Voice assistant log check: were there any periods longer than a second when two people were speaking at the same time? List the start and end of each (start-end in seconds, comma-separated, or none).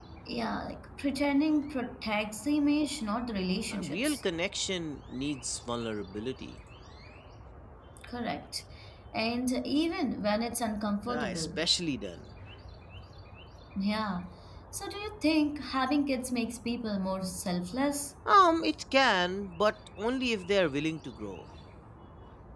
none